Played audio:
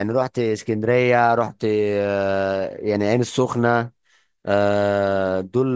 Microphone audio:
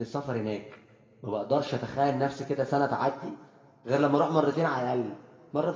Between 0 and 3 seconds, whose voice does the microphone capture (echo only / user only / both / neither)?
user only